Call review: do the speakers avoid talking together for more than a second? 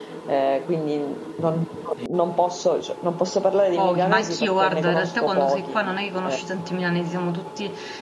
No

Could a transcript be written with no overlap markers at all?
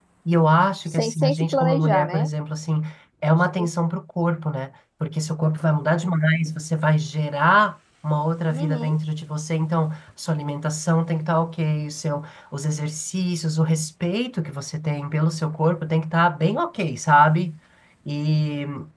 No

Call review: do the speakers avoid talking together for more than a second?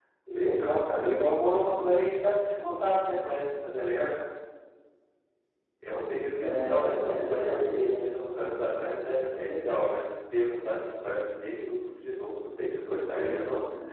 No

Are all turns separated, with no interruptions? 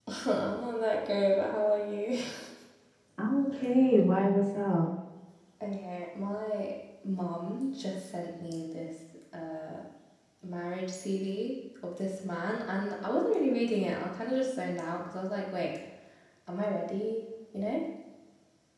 Yes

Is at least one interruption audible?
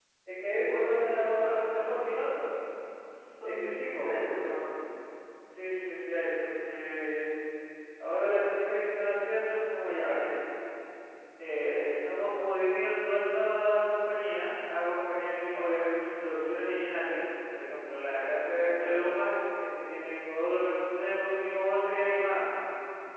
Yes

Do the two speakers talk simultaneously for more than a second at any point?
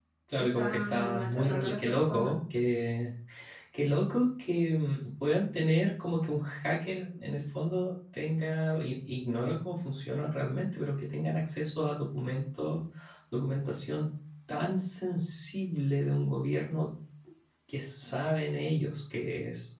Yes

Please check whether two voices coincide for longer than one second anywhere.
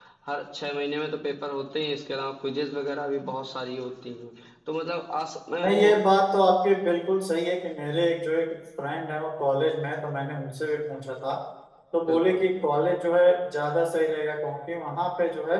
No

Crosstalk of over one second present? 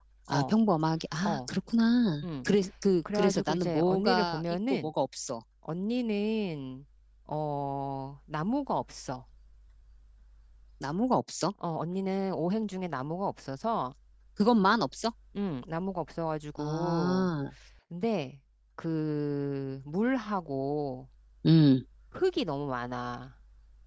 Yes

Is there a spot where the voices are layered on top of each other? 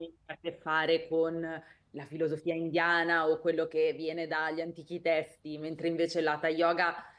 No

